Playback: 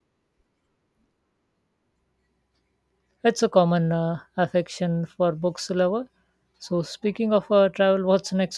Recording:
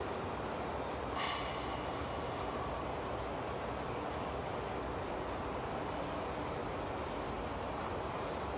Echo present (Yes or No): No